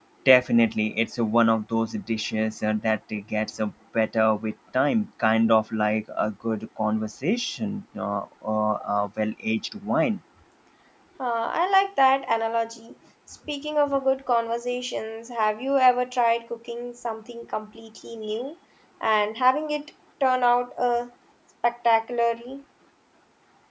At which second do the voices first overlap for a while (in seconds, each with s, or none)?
none